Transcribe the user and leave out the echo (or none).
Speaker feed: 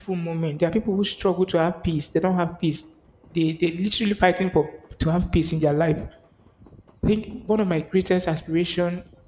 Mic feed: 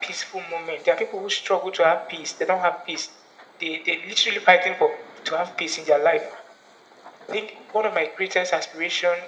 none